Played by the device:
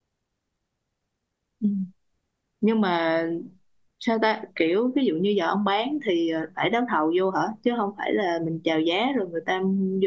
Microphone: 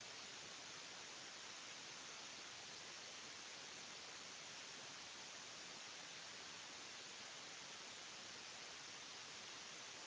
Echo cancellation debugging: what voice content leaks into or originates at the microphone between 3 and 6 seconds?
neither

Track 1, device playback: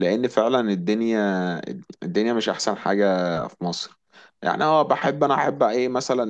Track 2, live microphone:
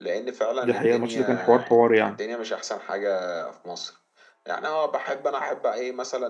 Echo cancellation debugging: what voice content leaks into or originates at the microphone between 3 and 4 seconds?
echo only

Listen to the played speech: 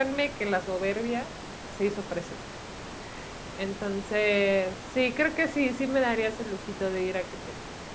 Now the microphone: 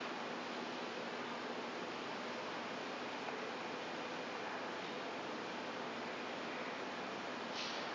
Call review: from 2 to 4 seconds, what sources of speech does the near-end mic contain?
neither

